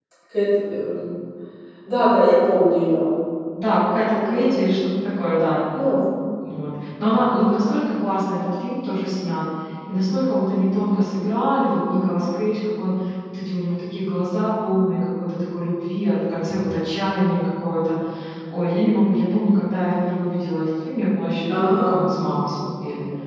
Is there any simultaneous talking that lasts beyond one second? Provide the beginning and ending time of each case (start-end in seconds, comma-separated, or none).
none